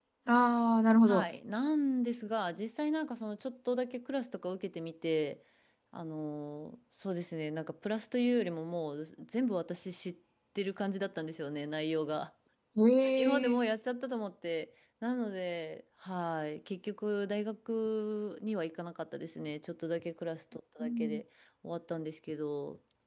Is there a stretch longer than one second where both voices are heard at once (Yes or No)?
No